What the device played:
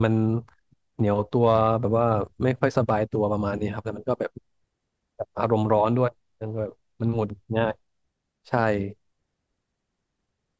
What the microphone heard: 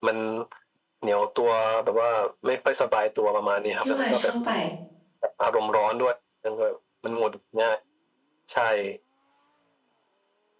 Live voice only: พี่ว่าชอบไป

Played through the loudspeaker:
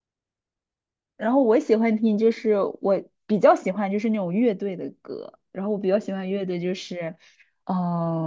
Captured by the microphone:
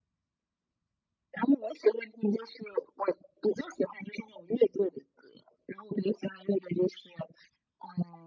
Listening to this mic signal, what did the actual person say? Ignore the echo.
none

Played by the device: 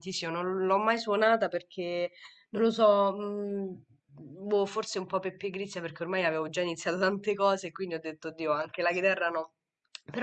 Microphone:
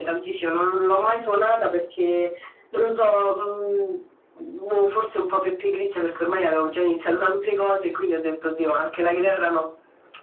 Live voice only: none

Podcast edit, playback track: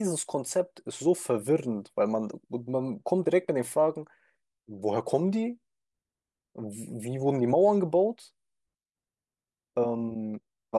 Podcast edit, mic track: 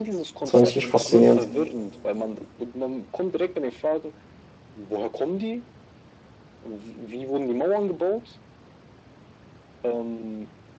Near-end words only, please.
Das war ich richtig faszinierend.

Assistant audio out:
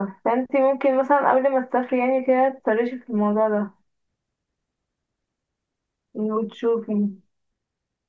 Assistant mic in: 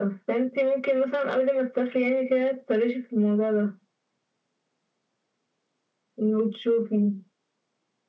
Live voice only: none

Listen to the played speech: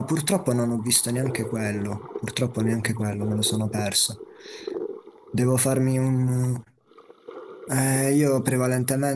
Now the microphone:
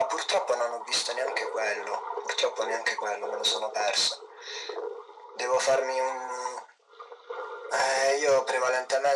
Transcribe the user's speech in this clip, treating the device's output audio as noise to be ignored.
none

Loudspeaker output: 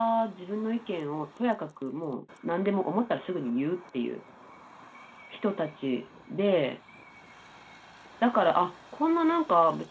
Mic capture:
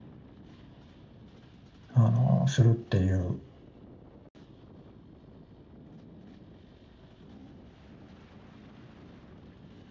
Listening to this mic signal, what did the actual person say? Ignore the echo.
あのするっていう

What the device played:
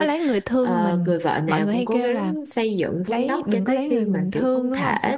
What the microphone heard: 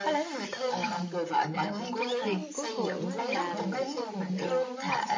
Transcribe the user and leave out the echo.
thì cuối cùng á là ờ,

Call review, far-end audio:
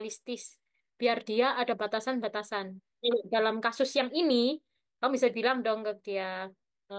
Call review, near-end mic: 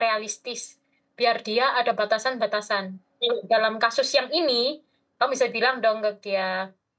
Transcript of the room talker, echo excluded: none

